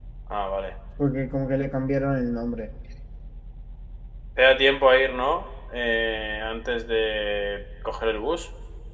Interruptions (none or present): none